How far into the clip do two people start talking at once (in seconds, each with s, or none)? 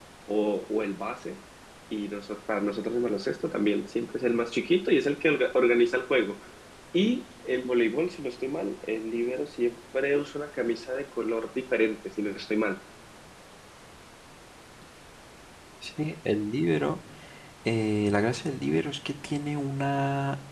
none